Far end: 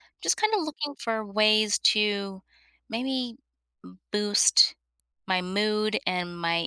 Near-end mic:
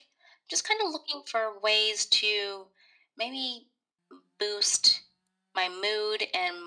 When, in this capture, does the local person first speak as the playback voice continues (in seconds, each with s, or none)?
none